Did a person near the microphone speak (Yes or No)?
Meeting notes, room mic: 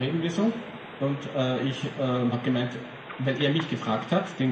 No